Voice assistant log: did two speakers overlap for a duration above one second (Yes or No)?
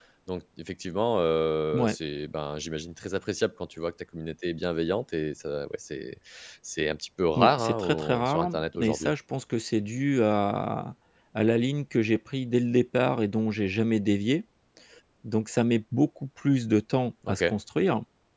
Yes